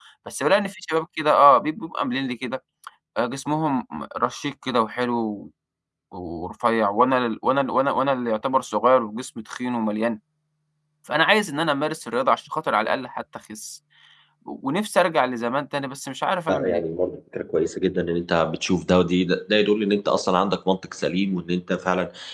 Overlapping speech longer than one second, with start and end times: none

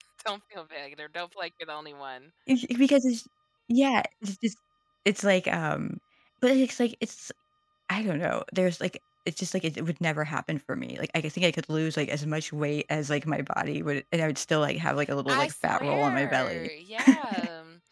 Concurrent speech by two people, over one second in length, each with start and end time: 15.3-16.7

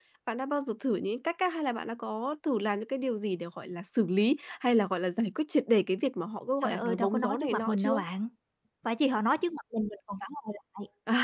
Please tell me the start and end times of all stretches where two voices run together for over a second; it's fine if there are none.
6.6-8.0

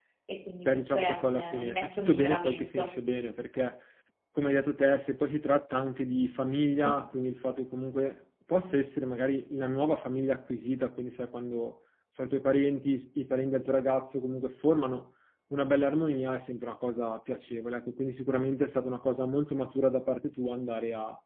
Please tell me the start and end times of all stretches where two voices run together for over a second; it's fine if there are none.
0.9-2.9

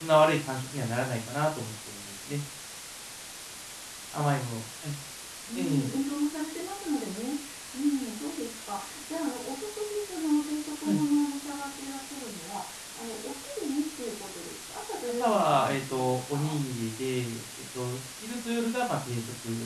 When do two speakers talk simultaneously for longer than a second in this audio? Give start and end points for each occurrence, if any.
15.2-16.6

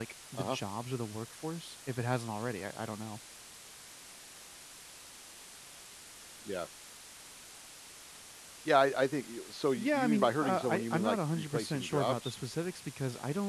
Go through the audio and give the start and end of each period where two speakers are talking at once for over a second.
9.8-12.4

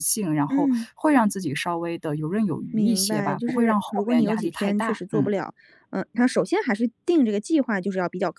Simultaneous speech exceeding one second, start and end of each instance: 2.7-5.3

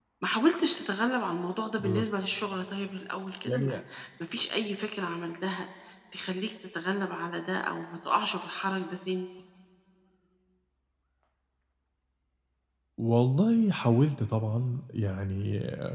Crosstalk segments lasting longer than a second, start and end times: none

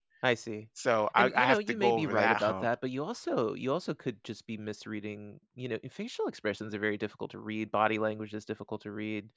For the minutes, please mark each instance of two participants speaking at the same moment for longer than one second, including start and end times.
1.1-2.7

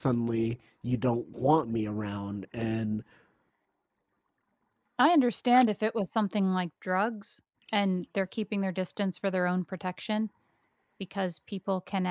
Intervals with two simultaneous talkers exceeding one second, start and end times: none

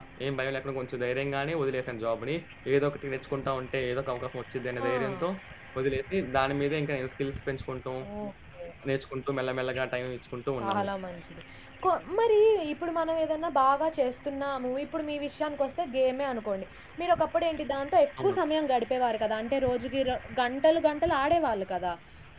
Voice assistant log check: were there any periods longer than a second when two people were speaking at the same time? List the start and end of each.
none

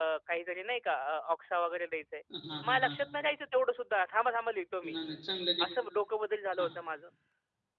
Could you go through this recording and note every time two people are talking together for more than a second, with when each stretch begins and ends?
none

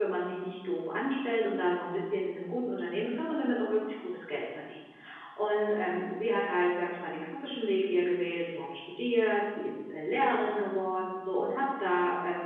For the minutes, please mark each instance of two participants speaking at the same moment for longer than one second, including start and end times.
none

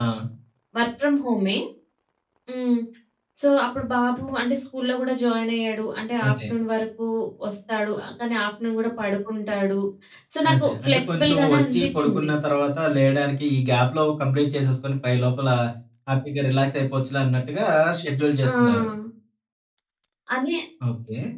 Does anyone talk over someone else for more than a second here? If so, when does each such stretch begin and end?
10.5-12.3

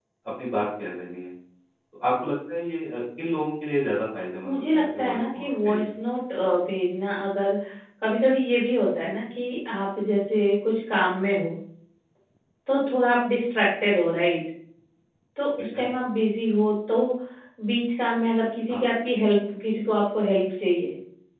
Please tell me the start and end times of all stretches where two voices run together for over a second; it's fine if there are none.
4.4-5.9

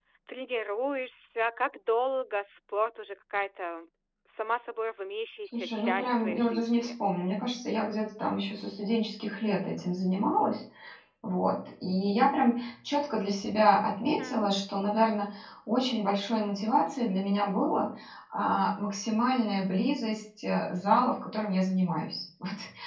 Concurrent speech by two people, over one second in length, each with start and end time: 5.5-6.9

